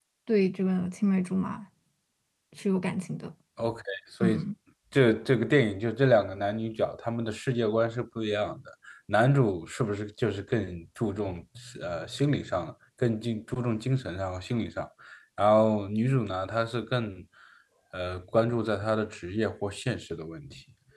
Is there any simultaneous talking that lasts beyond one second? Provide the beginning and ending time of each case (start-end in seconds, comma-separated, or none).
none